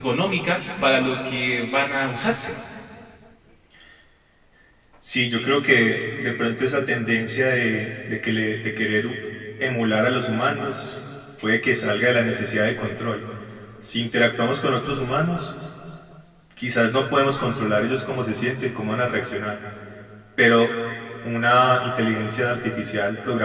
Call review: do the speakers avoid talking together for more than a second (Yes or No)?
Yes